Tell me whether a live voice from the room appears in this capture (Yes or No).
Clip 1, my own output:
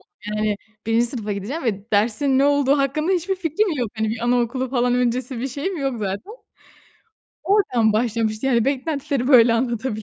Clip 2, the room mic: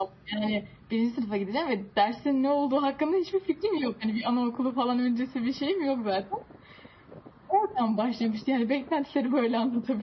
No